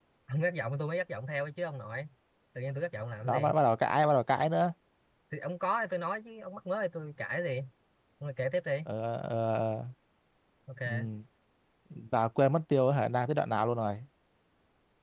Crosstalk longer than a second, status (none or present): none